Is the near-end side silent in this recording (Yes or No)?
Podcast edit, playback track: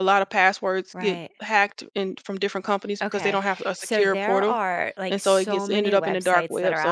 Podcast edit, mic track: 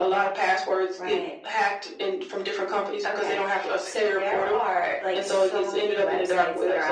Yes